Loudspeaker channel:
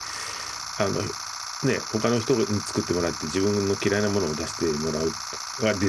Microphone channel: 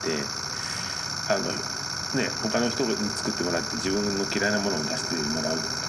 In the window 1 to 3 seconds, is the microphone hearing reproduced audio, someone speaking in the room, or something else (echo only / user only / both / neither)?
echo only